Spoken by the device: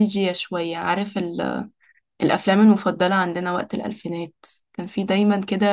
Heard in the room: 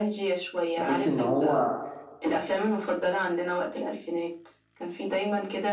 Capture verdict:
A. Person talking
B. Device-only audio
A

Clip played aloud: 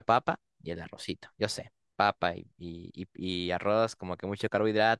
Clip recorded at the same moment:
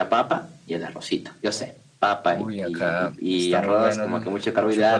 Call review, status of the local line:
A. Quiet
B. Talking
B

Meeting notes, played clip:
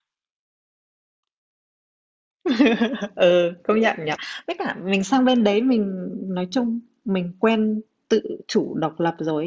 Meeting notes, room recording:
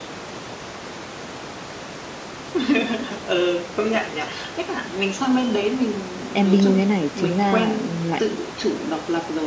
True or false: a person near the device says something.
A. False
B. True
B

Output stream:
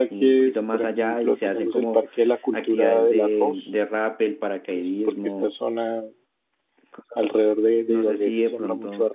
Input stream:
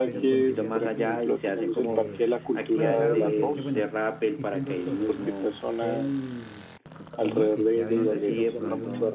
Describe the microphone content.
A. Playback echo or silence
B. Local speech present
B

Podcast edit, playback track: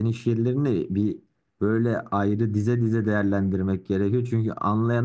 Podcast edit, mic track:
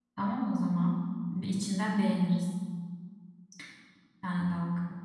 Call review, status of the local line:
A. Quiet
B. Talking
B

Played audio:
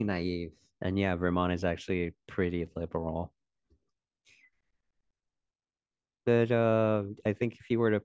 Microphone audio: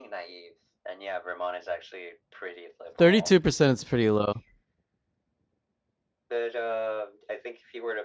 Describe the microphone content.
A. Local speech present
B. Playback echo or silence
A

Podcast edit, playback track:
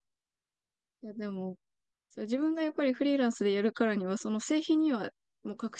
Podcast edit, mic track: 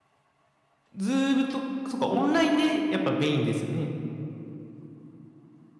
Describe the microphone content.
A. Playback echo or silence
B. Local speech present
B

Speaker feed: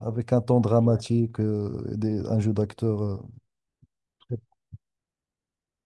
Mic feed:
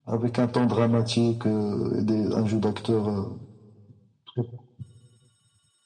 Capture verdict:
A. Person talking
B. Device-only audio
B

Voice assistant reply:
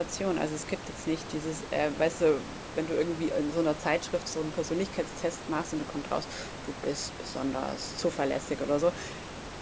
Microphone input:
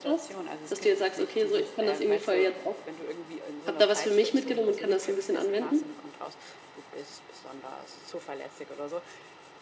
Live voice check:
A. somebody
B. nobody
A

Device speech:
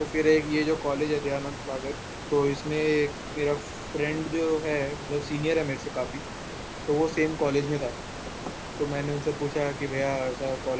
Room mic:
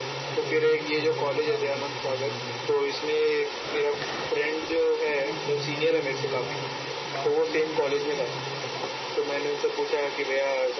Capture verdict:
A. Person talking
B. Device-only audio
A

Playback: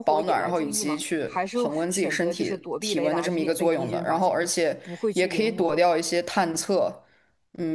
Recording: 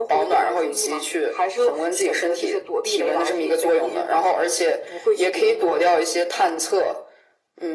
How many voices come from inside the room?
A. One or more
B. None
B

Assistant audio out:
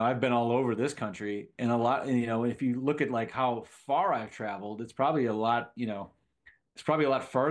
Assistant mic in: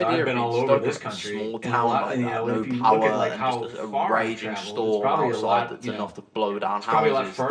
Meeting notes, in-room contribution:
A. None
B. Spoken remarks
B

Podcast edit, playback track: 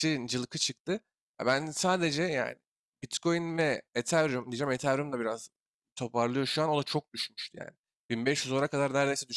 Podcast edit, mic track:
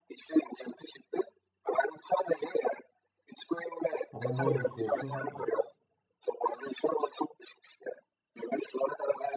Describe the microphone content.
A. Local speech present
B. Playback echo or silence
A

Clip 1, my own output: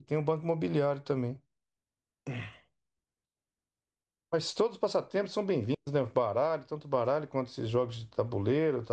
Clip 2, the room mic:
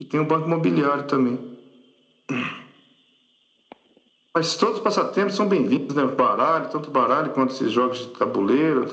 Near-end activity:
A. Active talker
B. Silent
B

